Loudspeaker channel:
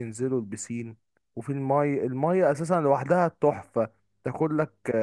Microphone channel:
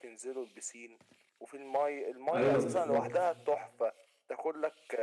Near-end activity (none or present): present